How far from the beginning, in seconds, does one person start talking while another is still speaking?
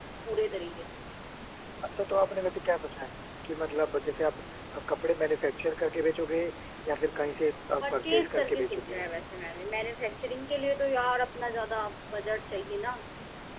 8 s

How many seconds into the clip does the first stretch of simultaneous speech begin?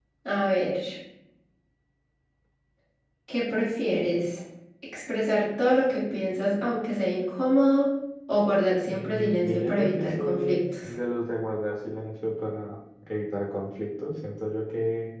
9 s

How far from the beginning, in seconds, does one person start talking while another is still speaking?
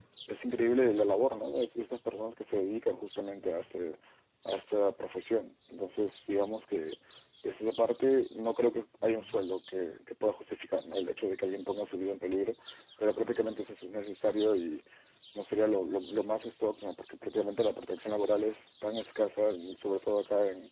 none

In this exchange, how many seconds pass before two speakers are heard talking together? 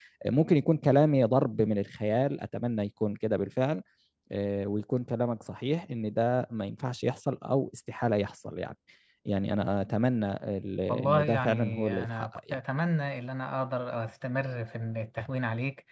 11 s

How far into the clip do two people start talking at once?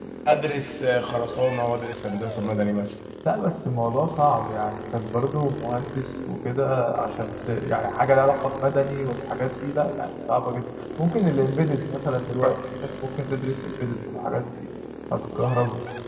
none

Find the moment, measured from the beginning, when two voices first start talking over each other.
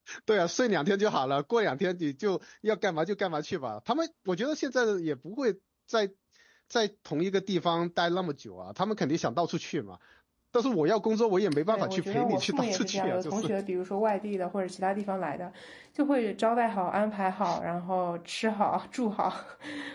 12 s

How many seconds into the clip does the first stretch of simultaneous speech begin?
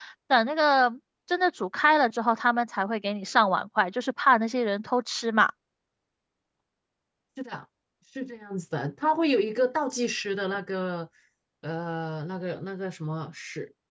none

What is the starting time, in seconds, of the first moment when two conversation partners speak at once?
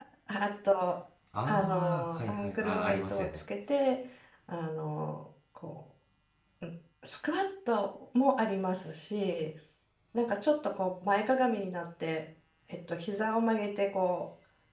1 s

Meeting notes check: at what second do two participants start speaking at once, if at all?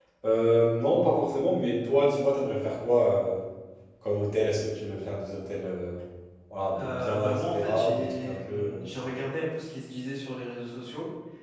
7 s

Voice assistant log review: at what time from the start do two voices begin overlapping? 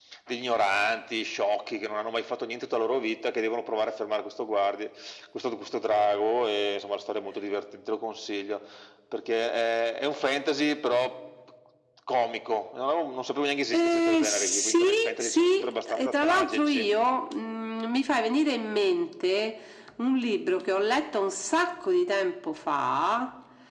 14 s

